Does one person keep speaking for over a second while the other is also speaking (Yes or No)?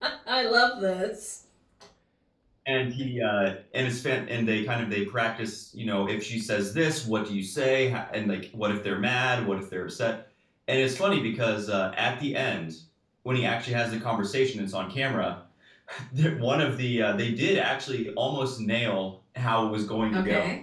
No